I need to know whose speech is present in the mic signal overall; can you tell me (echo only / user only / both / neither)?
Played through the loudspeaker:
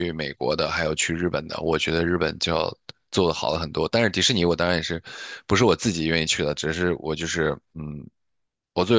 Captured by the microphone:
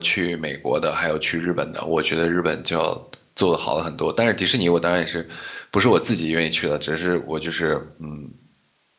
echo only